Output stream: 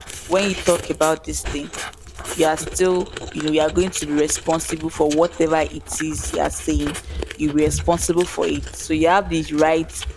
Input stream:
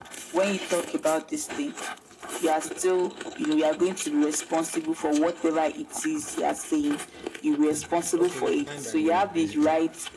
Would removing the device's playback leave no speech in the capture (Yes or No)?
No